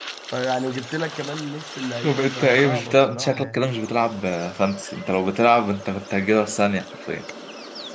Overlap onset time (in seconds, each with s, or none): 2.0 s